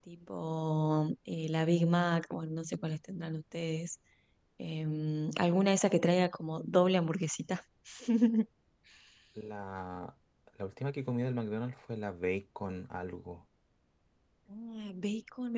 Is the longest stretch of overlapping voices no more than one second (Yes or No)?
Yes